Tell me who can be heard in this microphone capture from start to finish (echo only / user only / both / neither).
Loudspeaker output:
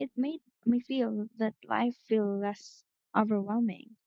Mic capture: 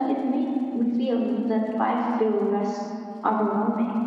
echo only